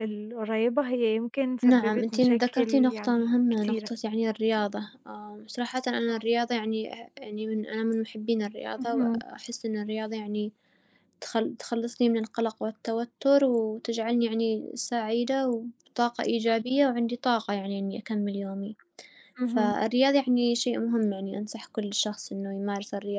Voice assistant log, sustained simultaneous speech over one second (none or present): present